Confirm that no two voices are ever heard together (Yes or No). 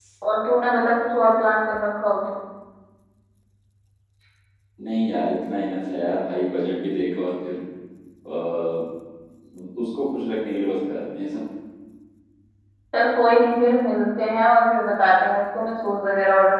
Yes